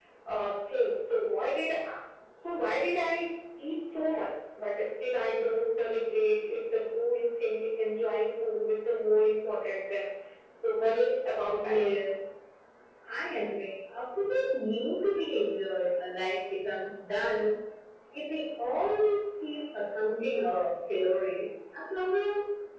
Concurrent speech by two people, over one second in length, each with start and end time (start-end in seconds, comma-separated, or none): none